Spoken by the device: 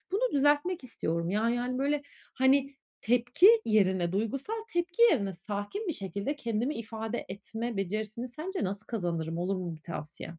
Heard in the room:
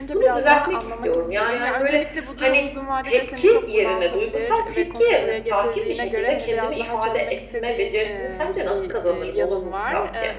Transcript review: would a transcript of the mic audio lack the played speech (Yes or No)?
No